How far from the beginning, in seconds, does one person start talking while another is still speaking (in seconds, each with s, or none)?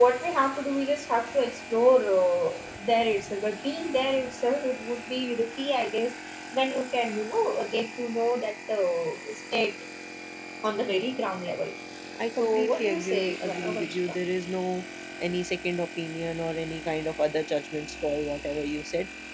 12.4 s